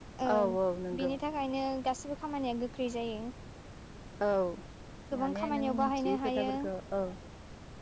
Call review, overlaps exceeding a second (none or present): present